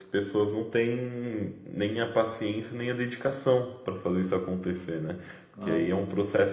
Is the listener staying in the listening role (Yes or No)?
Yes